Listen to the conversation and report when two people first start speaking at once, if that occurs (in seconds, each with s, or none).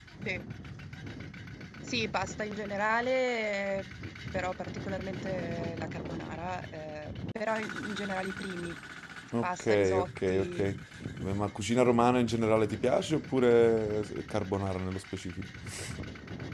9.4 s